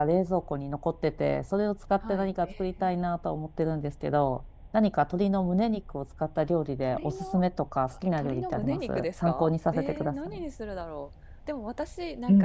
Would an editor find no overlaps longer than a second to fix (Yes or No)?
No